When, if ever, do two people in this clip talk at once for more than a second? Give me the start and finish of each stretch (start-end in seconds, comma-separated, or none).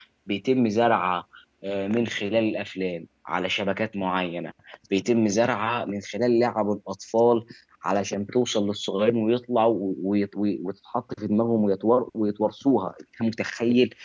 none